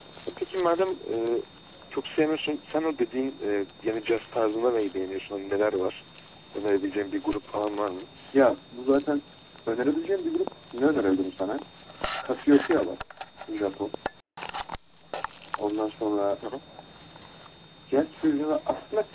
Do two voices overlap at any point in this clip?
No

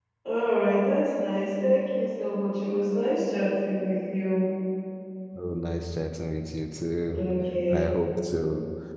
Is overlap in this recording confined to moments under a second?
Yes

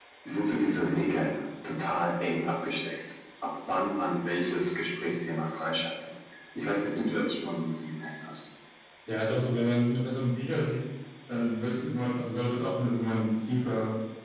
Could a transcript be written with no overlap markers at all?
Yes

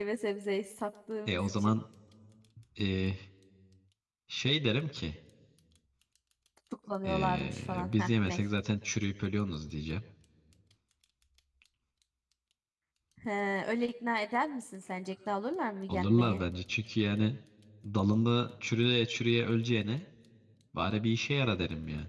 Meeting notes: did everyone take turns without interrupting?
No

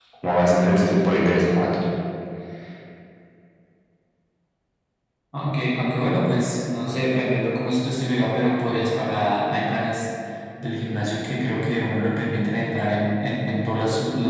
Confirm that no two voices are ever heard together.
Yes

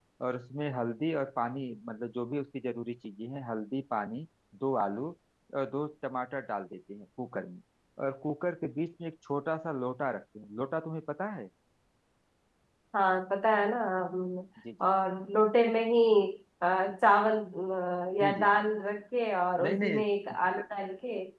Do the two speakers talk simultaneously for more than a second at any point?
No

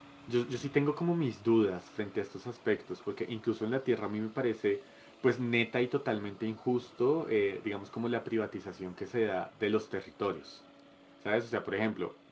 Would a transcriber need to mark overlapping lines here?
No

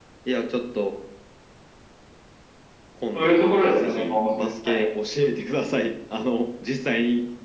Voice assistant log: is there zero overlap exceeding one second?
No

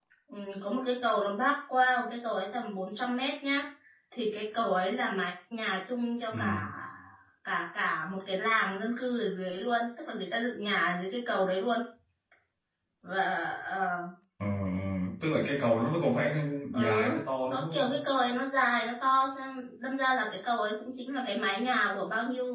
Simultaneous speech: Yes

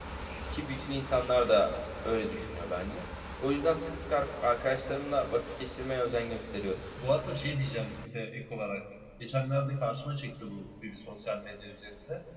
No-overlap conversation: Yes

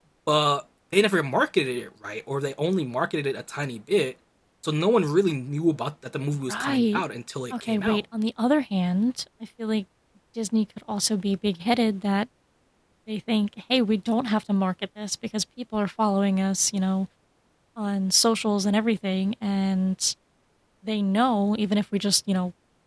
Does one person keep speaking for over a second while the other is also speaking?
No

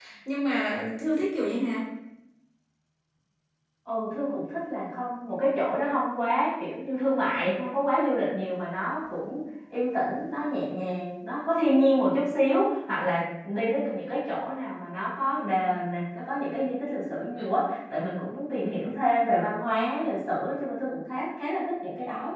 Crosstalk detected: No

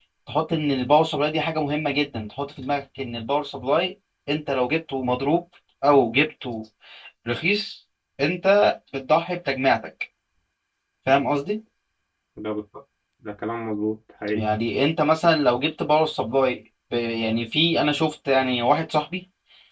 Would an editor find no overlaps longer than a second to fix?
Yes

